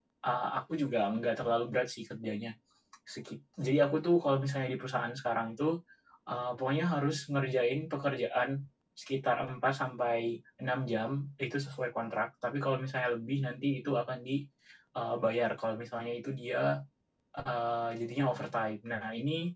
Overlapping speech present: No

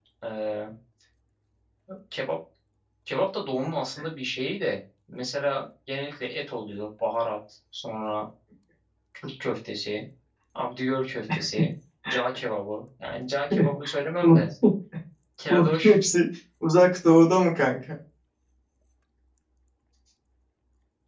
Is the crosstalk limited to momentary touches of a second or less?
Yes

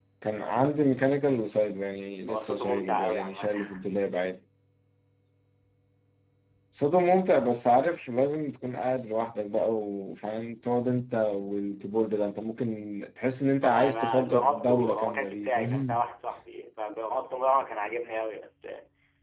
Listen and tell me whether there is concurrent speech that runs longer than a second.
Yes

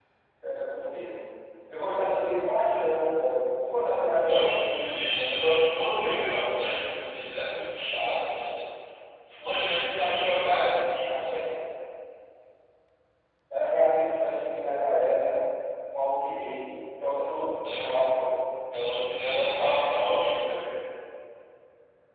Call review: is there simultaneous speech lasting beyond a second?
No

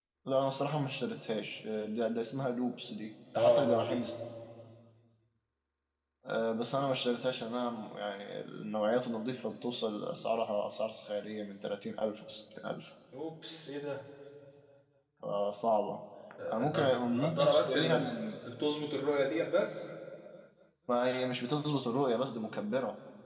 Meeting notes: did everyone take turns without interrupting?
No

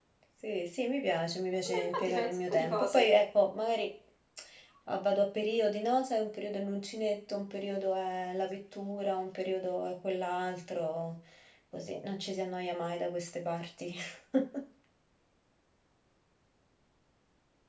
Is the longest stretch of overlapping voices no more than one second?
No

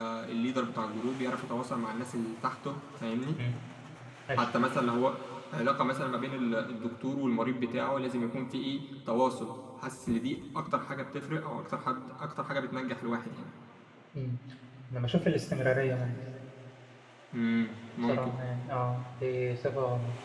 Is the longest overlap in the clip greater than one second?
No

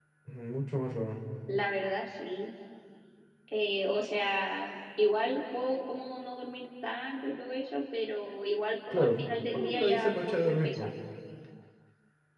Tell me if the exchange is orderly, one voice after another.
No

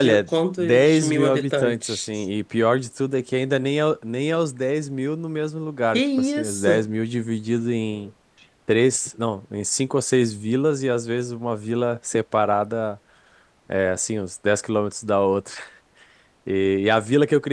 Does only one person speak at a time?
No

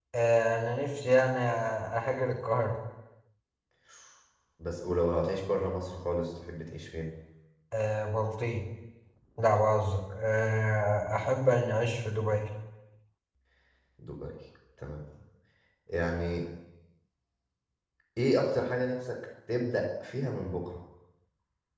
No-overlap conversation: Yes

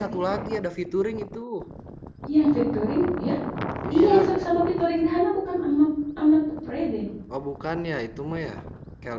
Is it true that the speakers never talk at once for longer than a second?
Yes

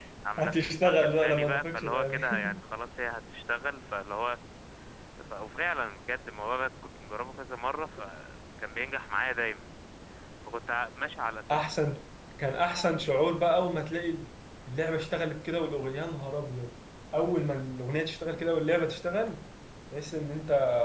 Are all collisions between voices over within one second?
No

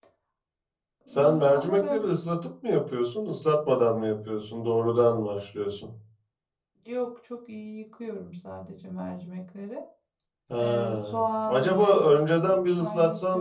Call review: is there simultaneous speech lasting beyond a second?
Yes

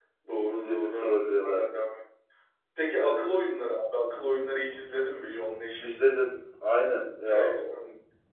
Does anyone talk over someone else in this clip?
Yes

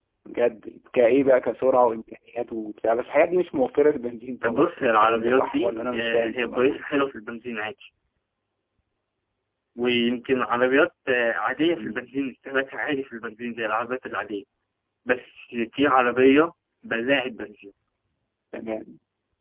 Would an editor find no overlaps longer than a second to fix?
No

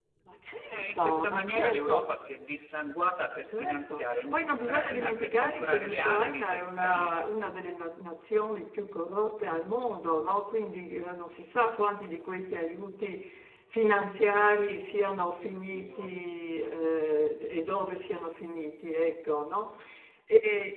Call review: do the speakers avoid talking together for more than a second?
No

